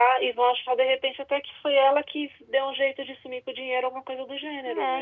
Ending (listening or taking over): taking over